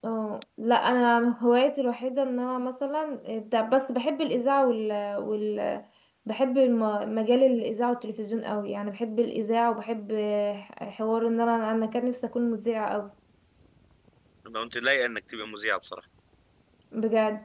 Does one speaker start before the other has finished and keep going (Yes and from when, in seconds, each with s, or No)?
No